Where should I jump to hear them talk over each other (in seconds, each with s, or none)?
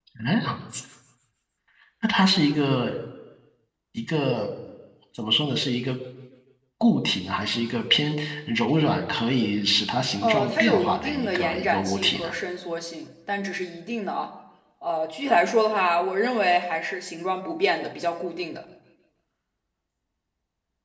10.2 s